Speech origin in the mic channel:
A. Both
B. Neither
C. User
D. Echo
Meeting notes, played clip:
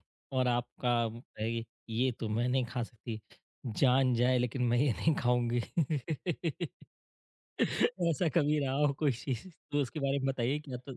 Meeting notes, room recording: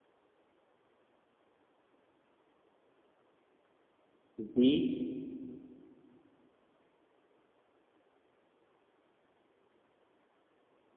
C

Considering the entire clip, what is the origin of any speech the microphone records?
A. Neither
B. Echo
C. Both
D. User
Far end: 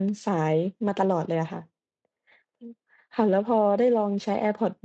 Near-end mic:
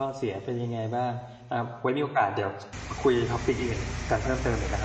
D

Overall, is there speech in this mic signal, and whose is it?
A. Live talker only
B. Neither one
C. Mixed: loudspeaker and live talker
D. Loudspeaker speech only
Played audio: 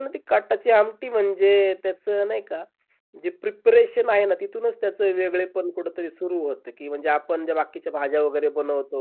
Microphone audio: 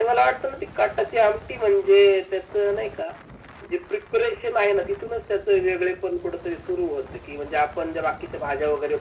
D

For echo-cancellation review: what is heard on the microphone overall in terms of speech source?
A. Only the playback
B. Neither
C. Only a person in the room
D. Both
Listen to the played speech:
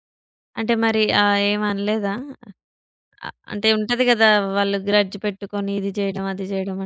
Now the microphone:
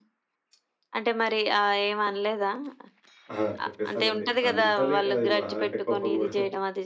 D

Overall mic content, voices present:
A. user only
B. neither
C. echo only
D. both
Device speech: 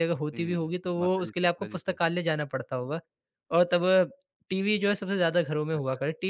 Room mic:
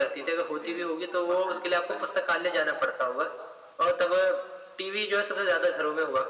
C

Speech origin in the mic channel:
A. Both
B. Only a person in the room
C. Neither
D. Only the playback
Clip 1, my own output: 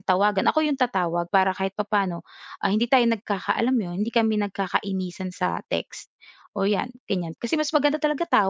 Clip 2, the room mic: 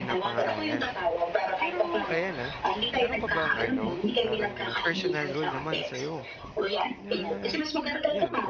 A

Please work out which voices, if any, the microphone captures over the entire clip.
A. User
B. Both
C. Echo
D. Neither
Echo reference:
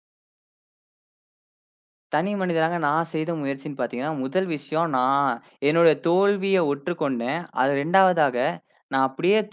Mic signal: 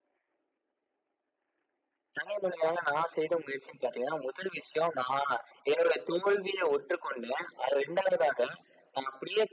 C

